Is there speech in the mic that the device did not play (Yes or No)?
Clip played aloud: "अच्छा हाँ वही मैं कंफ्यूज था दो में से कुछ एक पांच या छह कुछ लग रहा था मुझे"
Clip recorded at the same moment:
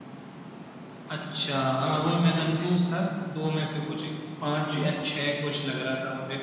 Yes